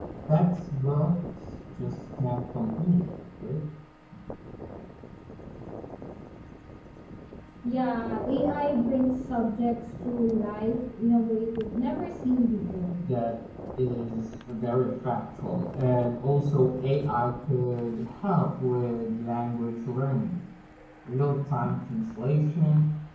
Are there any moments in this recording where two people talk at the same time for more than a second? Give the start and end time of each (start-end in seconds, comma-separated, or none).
none